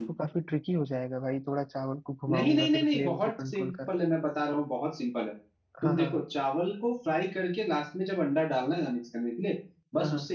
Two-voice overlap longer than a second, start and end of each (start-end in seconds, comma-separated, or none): 2.3-3.7